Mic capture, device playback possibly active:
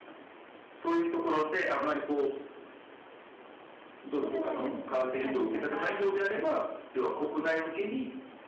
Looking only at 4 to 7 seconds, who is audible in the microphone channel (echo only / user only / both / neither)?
both